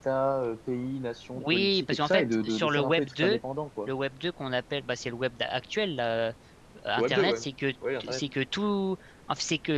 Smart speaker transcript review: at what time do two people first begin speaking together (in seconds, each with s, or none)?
1.3 s